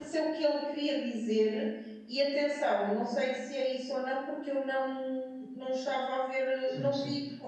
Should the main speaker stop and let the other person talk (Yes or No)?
No